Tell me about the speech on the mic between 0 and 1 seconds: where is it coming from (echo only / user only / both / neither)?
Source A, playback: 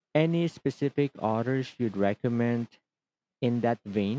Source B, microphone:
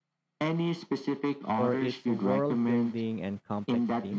echo only